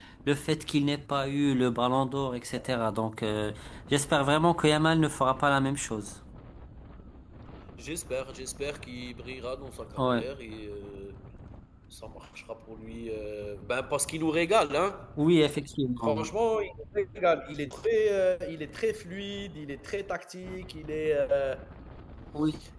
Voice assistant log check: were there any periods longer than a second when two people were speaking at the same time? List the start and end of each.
none

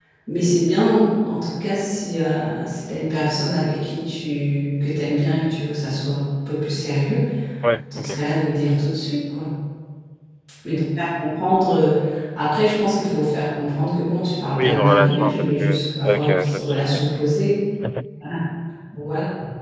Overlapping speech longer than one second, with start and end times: 14.6-17.0

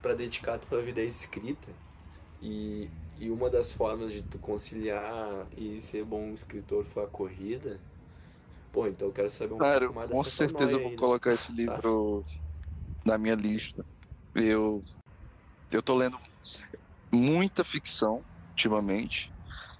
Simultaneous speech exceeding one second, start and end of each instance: 9.6-11.9

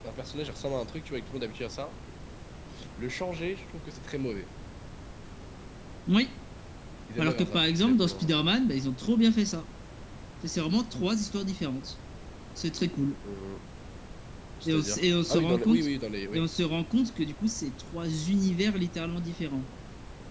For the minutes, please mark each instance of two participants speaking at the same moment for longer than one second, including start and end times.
7.2-8.5, 14.7-15.9

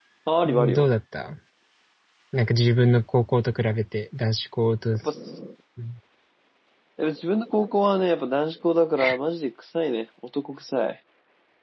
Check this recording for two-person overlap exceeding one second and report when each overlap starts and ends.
none

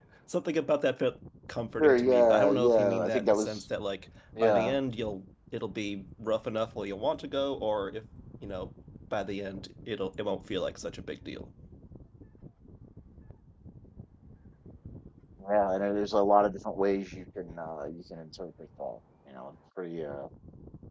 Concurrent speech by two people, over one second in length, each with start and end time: 1.8-3.6

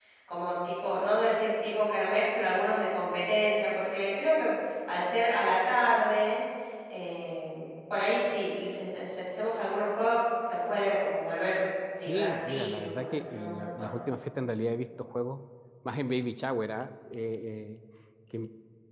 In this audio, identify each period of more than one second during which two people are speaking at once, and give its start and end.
12.0-13.9

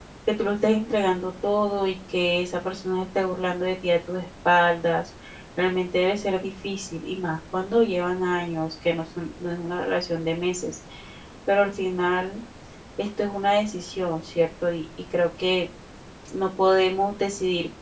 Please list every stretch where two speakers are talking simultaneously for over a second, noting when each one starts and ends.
none

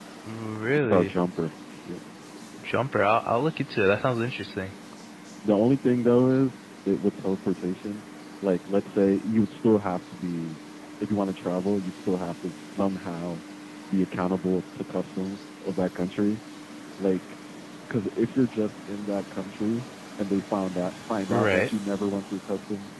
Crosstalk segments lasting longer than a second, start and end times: none

